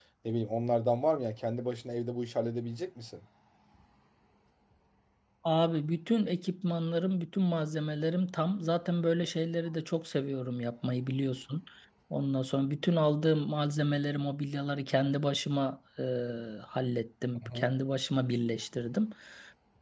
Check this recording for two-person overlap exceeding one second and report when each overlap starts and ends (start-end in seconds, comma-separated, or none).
none